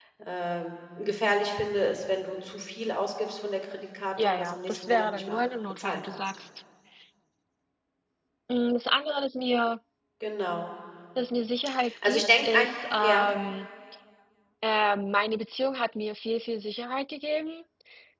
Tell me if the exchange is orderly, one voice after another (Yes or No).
No